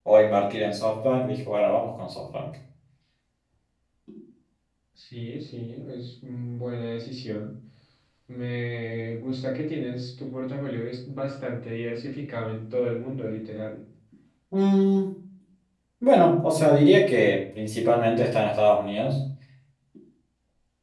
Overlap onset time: none

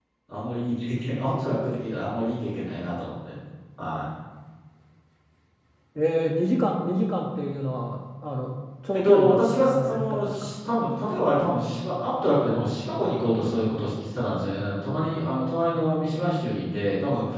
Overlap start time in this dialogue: 8.9 s

